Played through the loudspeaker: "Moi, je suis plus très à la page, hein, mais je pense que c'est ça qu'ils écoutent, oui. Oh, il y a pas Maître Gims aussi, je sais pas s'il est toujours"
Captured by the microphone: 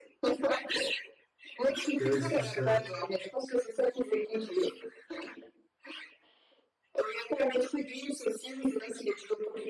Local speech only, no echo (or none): Careless Whisper.